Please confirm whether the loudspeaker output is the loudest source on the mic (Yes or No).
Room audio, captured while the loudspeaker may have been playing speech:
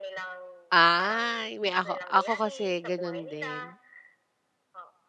No